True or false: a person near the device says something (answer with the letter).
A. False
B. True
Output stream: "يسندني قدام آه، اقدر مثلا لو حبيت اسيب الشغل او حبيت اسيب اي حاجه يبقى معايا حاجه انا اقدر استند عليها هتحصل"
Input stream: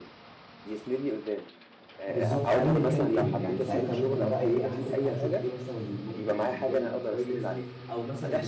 B